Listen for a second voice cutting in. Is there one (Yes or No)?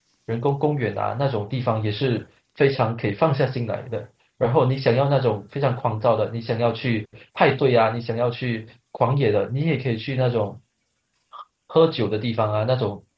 No